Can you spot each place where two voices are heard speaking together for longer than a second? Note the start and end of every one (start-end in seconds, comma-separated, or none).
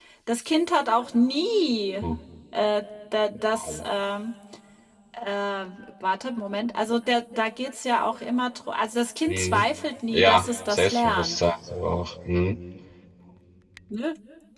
10.1-11.5